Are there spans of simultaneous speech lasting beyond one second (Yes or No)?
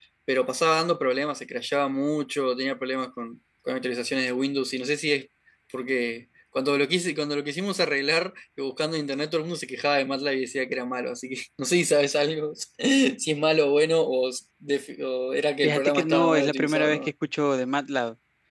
Yes